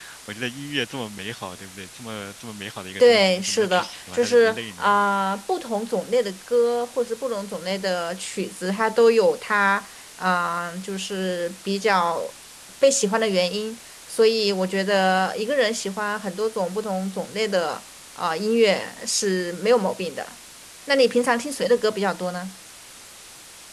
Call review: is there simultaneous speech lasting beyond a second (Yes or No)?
Yes